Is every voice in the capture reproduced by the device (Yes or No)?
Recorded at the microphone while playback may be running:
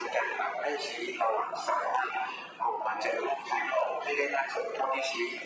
Yes